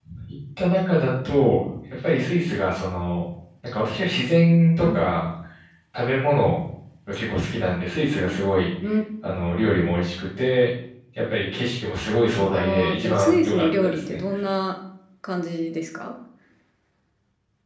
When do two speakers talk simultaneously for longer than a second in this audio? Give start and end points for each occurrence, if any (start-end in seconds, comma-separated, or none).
12.4-14.2